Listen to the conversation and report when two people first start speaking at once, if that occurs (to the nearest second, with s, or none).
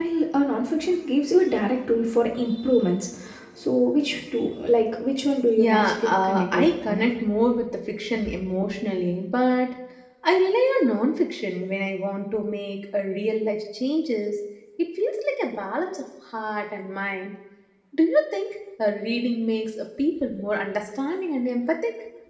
6 s